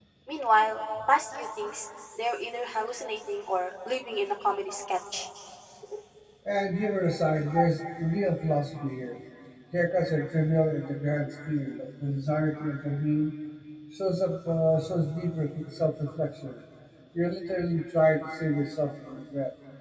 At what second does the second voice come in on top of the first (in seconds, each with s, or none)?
none